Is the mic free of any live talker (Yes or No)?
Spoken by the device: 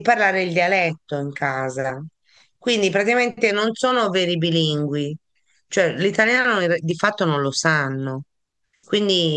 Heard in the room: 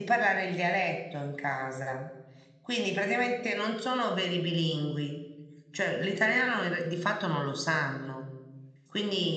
Yes